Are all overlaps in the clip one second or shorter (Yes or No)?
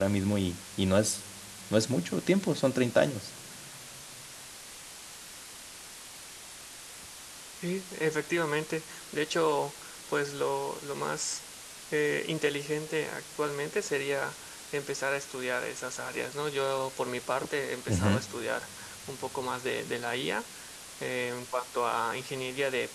Yes